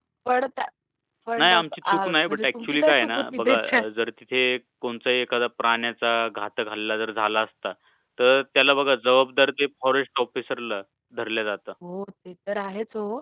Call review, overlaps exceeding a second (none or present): present